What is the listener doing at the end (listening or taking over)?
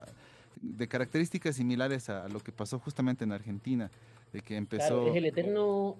taking over